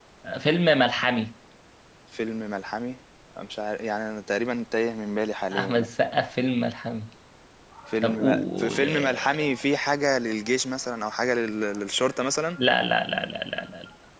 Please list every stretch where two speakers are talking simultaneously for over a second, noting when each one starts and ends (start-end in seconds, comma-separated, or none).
8.0-9.4